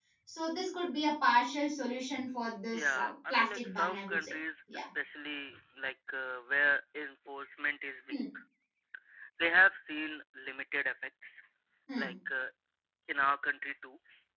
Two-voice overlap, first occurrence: 3 s

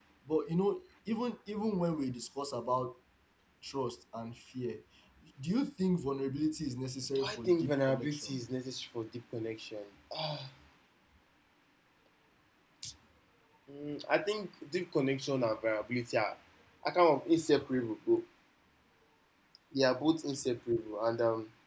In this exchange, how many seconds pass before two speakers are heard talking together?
7 s

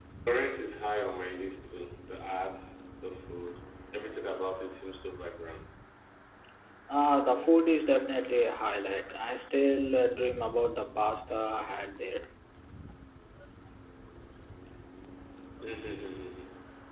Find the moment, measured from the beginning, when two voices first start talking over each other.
none

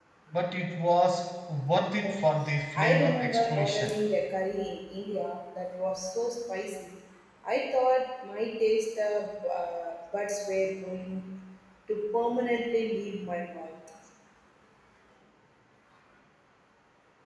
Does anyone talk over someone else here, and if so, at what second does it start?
3 s

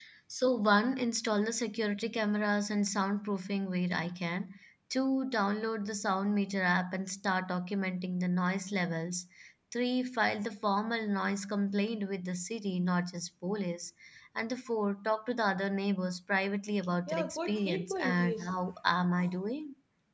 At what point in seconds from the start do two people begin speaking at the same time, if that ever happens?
17 s

